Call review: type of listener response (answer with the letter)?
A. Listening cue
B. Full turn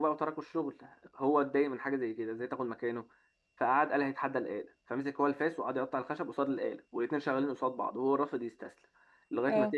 A